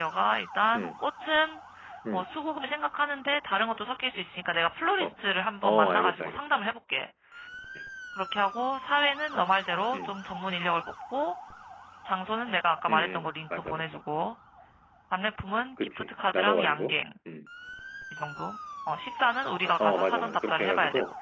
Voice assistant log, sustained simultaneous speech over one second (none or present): present